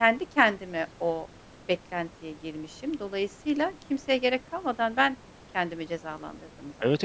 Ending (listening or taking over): taking over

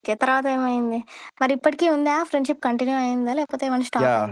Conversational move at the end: taking over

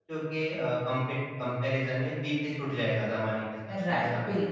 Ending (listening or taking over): taking over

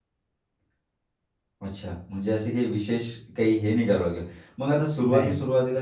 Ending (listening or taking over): listening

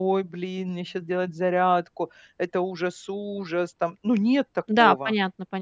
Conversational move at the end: taking over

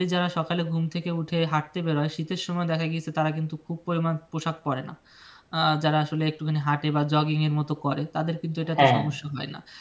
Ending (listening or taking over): listening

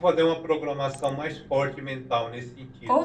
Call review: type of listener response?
taking over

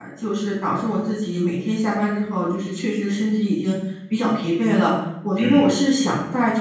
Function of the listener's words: listening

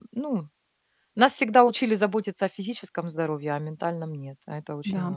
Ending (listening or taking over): taking over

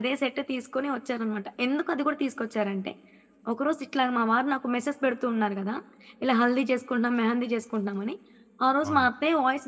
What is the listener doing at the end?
listening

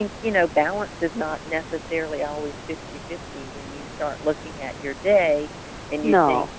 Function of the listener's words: listening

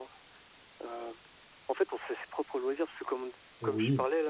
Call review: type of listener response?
listening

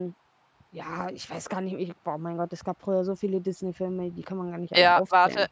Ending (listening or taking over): taking over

